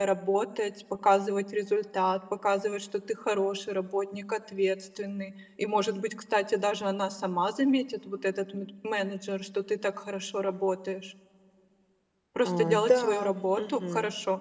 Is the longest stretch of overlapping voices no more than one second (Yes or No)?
No